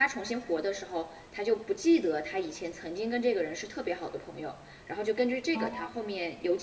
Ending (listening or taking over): listening